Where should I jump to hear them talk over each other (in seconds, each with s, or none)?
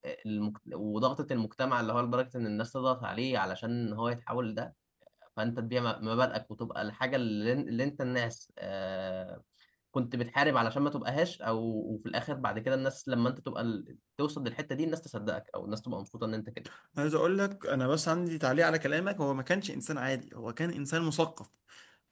none